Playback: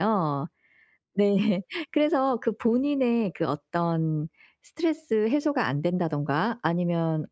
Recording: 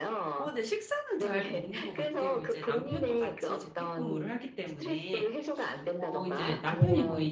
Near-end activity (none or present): present